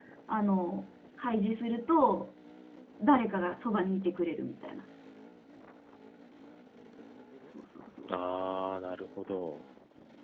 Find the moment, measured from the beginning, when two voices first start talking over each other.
none

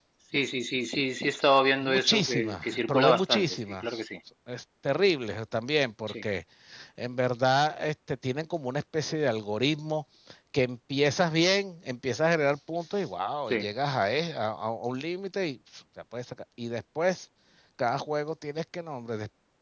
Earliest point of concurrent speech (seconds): 1.8 s

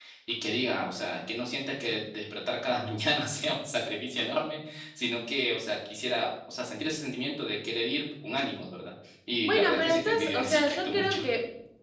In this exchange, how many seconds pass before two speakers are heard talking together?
9.4 s

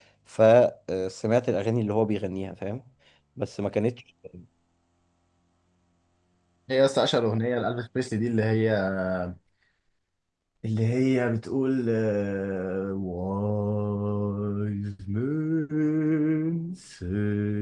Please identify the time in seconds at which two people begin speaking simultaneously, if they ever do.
none

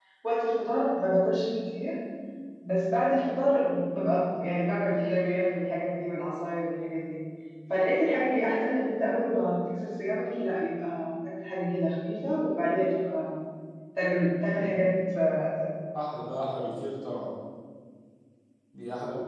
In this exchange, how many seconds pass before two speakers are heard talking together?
none

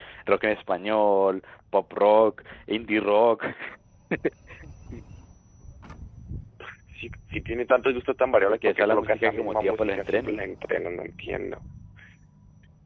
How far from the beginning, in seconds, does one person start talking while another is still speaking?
8.5 s

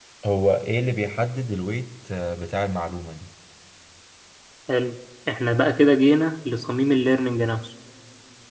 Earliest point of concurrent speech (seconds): none

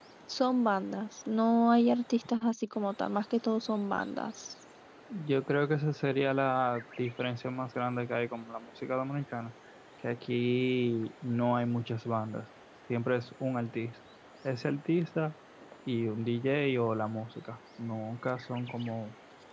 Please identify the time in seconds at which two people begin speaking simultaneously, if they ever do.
none

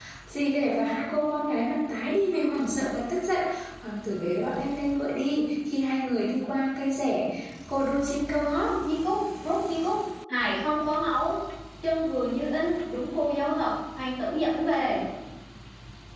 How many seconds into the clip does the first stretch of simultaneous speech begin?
none

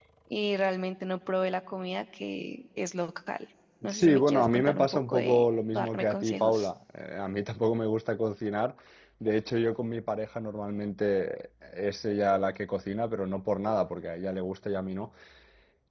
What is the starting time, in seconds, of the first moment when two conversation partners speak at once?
3.8 s

